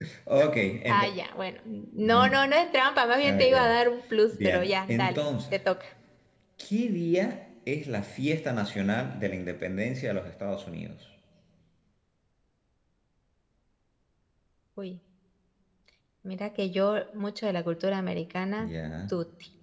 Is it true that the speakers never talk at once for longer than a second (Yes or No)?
No